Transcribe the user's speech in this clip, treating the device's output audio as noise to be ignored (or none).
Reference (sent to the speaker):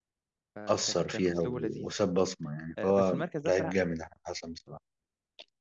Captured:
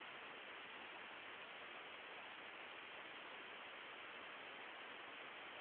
none